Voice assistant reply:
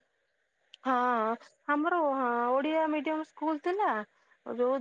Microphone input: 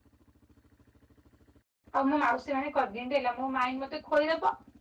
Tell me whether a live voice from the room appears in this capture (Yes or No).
Yes